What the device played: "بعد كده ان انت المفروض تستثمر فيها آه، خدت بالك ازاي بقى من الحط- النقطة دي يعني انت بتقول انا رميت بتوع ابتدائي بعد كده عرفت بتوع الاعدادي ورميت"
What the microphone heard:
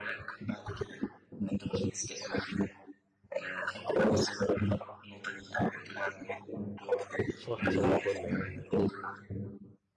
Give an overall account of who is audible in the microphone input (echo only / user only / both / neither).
both